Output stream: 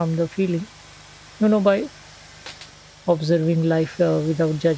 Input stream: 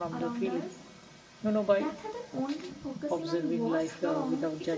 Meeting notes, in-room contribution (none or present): present